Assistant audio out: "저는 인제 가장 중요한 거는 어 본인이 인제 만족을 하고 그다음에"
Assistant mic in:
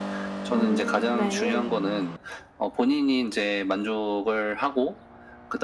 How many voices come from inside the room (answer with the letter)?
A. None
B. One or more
B